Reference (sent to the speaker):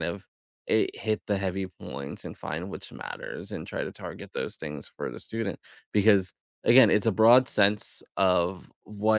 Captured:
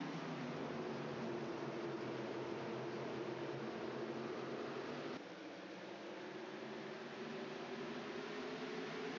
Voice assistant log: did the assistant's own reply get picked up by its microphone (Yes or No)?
No